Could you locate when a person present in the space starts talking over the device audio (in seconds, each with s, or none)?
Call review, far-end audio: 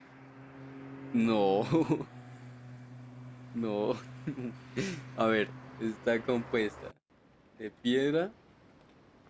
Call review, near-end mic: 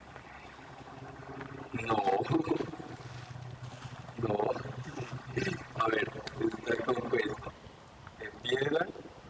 none